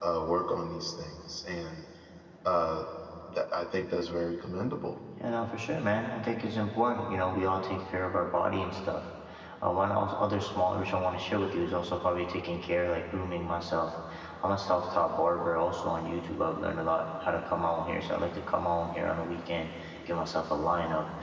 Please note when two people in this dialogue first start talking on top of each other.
none

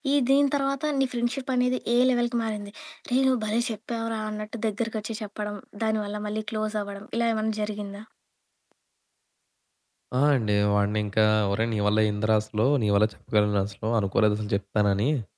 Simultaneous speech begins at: none

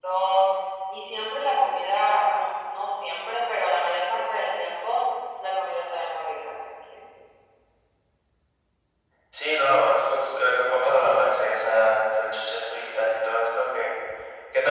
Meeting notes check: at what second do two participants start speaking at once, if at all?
none

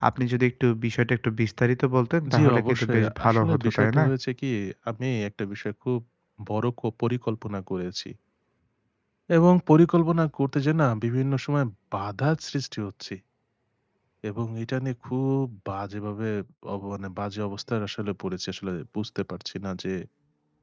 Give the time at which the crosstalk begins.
2.3 s

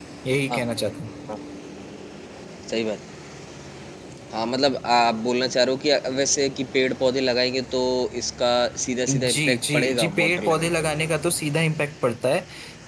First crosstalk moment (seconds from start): 9.1 s

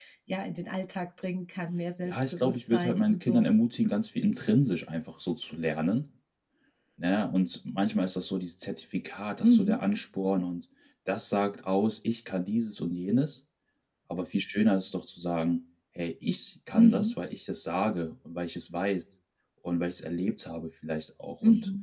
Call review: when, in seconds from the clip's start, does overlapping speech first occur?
2.0 s

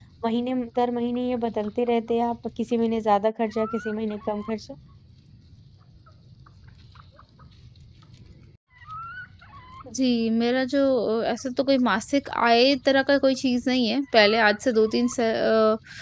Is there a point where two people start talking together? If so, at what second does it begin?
none

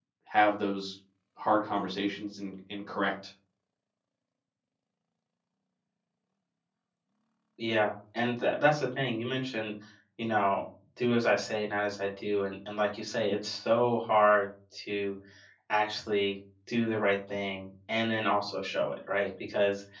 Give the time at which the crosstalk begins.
none

